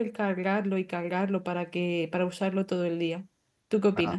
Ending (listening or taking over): taking over